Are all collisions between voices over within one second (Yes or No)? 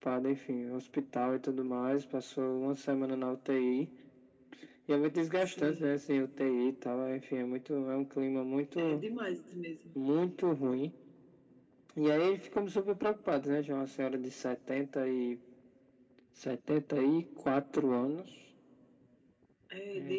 Yes